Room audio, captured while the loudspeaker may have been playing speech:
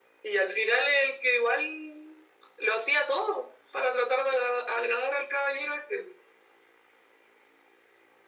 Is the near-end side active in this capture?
No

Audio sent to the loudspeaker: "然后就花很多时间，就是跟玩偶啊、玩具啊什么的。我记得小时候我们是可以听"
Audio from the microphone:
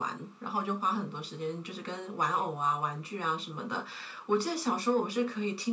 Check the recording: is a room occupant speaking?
No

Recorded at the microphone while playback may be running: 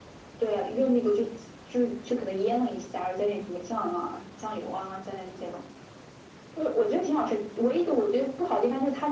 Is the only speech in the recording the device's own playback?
Yes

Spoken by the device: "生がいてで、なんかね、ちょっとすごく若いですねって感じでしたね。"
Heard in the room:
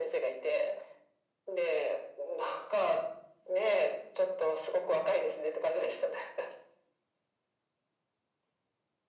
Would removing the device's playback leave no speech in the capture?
Yes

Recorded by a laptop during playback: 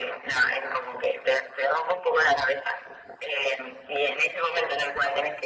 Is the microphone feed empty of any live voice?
Yes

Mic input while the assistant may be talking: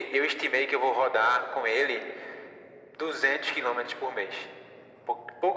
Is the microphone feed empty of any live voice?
Yes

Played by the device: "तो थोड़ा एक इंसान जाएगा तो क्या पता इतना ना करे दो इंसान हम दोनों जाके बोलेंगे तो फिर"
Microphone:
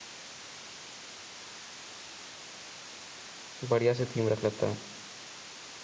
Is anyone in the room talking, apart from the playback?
Yes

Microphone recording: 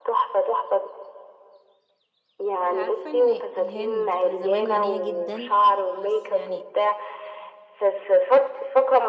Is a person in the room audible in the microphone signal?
Yes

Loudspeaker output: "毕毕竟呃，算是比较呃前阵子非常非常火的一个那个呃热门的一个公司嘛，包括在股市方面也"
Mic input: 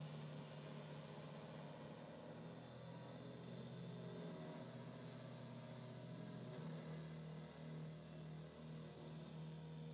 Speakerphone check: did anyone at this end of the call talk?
No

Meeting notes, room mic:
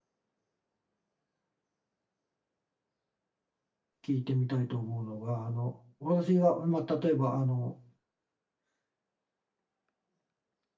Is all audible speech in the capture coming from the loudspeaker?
No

